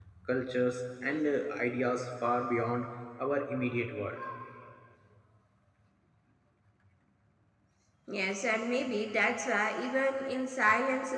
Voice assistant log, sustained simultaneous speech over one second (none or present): none